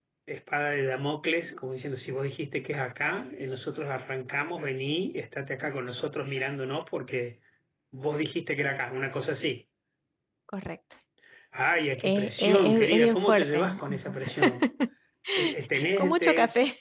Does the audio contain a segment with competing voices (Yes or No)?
Yes